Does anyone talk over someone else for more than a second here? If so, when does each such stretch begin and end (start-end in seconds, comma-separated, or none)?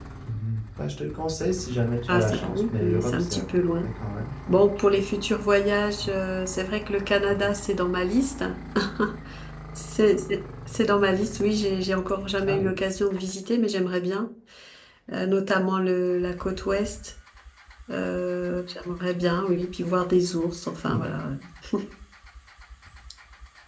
2.1-3.8